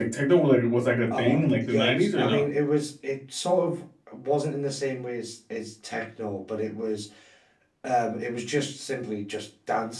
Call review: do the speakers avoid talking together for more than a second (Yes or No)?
No